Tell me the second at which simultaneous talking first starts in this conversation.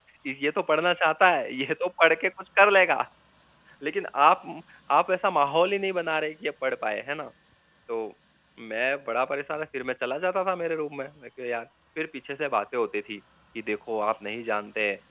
none

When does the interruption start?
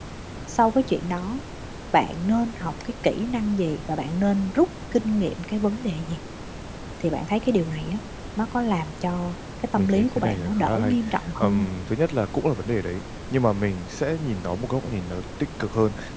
9.7 s

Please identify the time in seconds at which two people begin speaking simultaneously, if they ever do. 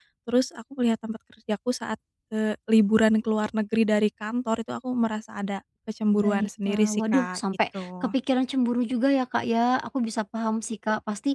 6.1 s

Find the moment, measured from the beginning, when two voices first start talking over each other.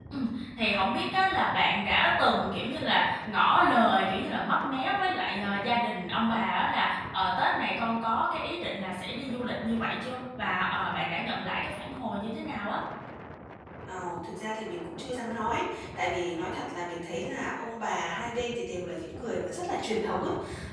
none

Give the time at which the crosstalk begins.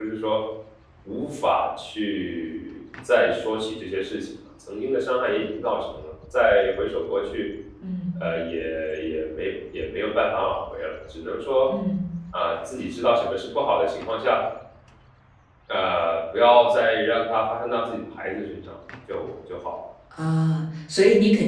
none

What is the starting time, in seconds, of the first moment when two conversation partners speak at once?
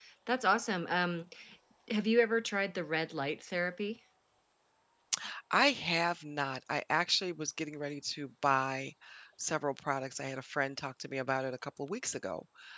none

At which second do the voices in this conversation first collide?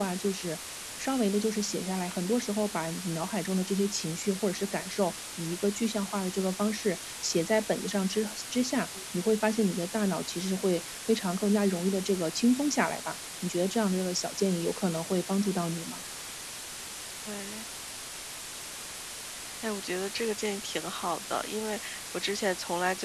none

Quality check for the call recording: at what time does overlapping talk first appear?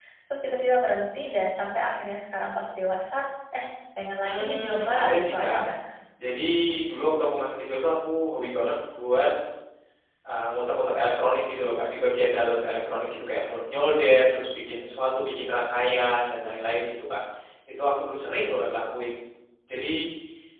4.2 s

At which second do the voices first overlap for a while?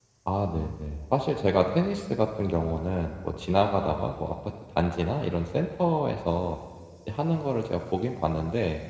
none

